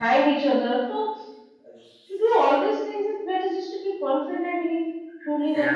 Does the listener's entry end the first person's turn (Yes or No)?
Yes